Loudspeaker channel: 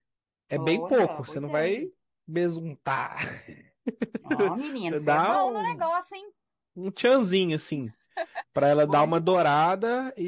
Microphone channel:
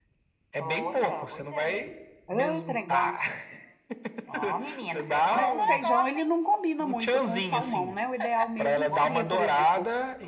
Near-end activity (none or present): present